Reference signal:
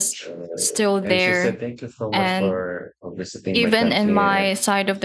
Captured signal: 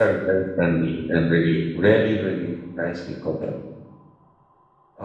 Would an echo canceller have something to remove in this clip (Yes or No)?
No